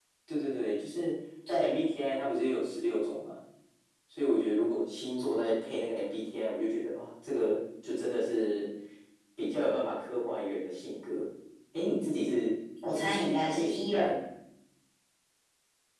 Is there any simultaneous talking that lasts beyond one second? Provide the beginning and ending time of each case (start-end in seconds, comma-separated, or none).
12.8-14.2